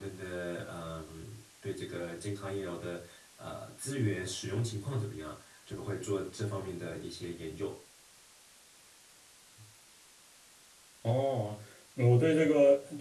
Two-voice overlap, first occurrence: none

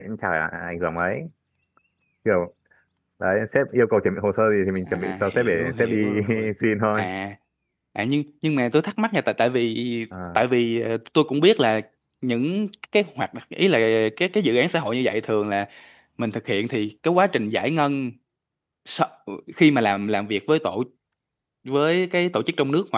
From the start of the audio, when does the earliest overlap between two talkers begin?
5 s

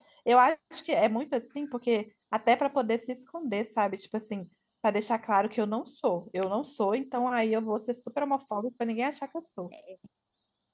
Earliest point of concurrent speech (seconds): none

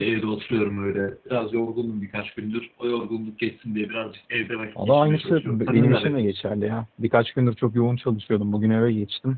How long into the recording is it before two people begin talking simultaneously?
5 s

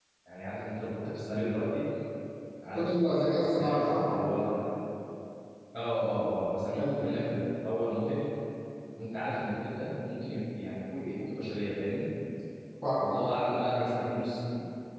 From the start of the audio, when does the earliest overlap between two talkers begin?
3 s

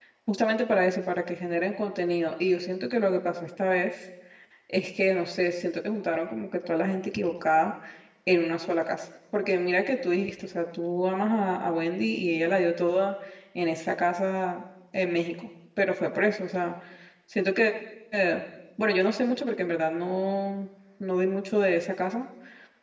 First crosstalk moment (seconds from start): none

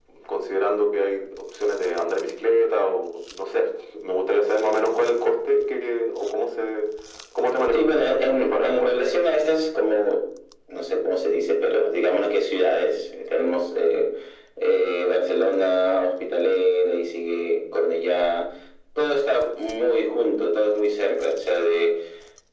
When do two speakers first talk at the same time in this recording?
8 s

